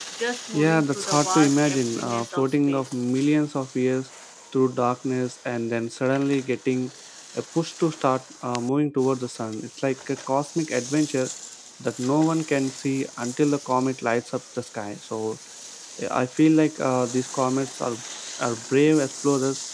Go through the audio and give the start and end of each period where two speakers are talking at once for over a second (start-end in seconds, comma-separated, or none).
0.5-3.0